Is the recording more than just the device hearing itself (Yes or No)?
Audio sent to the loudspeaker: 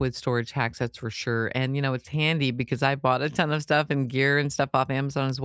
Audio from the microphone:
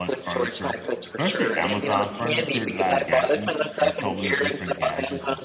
Yes